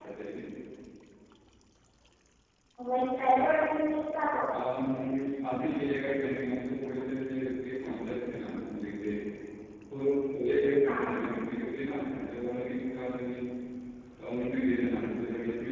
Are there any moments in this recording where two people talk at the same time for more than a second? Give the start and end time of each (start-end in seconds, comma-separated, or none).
none